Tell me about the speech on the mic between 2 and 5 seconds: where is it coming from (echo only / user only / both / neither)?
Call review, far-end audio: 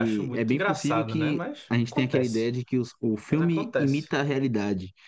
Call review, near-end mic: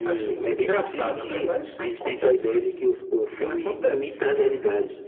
echo only